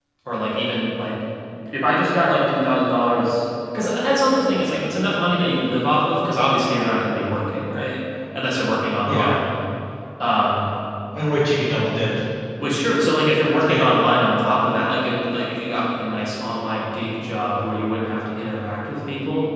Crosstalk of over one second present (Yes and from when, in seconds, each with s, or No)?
No